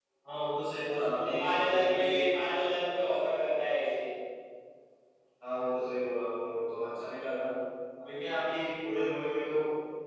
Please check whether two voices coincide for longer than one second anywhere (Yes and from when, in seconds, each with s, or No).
Yes, from 0.8 s